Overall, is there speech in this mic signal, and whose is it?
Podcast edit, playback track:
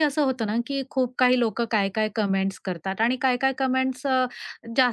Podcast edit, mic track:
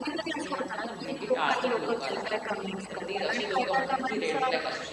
both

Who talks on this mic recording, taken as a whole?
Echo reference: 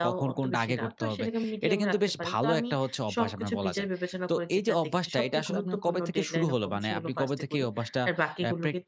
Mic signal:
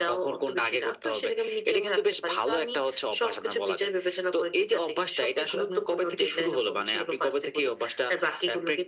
echo only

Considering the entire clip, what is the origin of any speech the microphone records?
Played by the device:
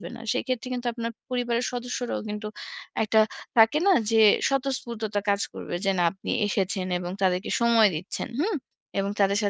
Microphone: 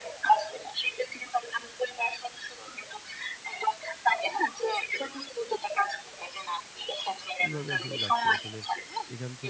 both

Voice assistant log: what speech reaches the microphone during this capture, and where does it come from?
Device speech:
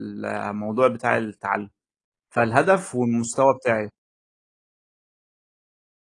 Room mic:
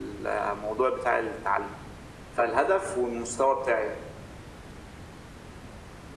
echo only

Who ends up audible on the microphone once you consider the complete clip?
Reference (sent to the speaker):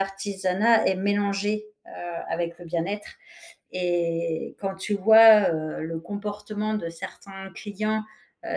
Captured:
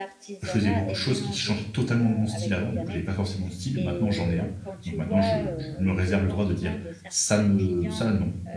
both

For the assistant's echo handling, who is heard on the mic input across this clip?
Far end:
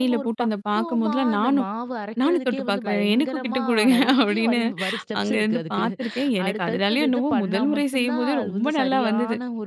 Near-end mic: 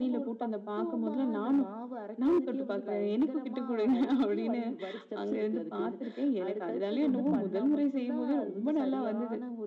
both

